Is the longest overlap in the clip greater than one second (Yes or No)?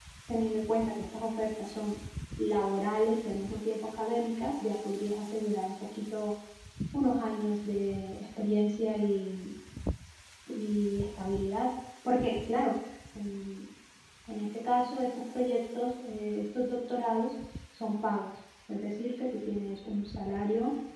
No